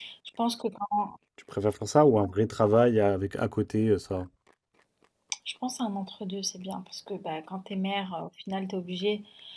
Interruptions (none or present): none